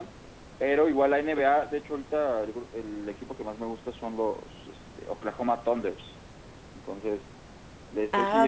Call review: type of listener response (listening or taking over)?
taking over